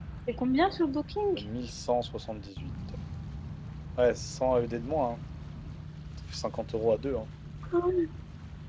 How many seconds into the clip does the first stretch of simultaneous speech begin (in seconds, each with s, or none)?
none